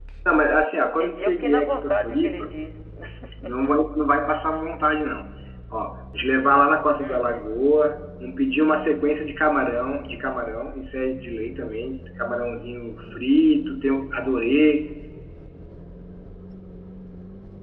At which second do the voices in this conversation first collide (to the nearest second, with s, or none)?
1 s